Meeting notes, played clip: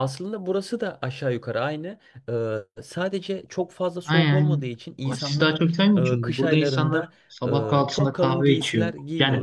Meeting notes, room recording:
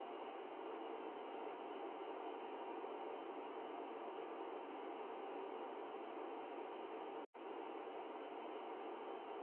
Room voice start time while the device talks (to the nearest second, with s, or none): none